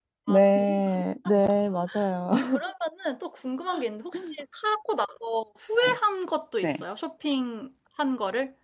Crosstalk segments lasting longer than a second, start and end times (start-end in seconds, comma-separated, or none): none